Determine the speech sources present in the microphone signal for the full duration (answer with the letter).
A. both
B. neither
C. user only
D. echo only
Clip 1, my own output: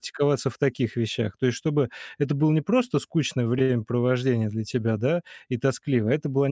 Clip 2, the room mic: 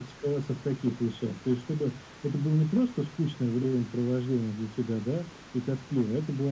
D